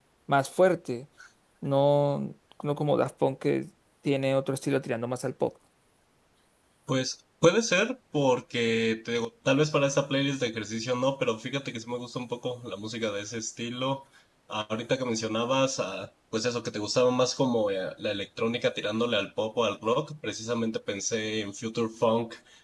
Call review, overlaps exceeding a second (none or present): none